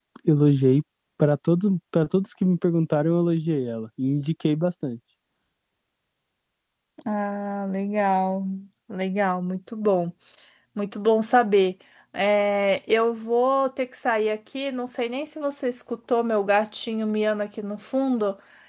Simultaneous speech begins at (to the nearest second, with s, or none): none